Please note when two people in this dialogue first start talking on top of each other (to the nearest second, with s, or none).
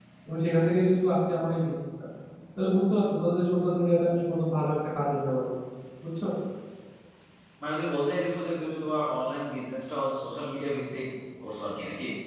none